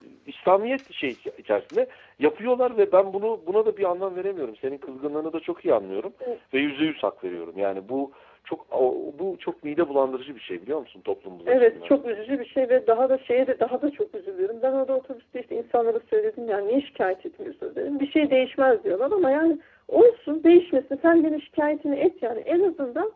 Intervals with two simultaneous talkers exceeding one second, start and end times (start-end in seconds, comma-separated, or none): none